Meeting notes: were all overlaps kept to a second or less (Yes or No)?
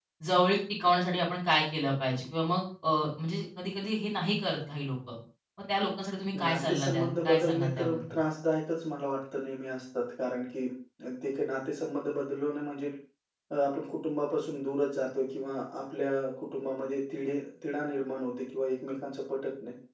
No